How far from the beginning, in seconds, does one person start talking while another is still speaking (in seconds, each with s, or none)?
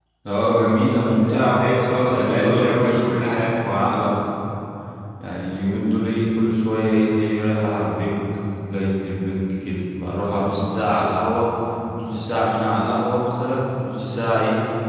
1.2 s